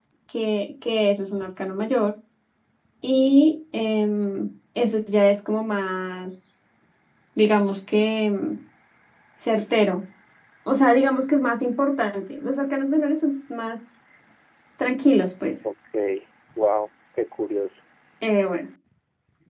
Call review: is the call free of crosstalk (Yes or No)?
Yes